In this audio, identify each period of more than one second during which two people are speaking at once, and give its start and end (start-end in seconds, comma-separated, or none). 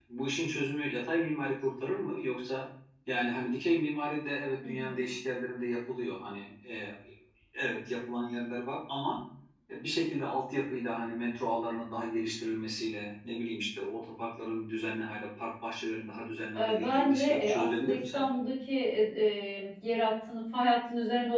16.6-18.4